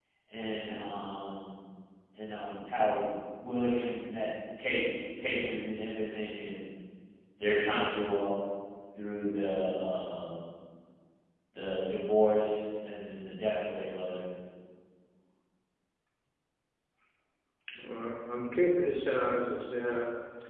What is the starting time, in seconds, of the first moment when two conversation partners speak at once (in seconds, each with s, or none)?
none